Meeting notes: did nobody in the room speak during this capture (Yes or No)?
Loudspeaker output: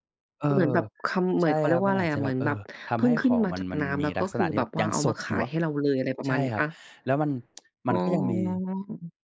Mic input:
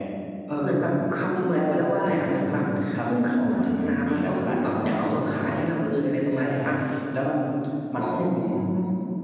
Yes